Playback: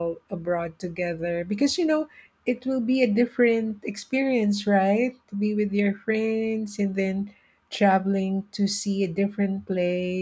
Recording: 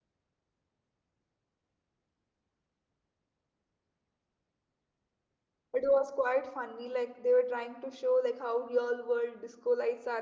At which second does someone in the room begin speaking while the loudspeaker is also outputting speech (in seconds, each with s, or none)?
5.8 s